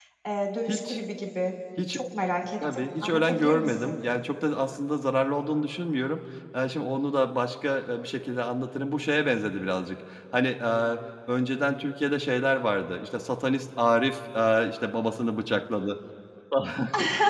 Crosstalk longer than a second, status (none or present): present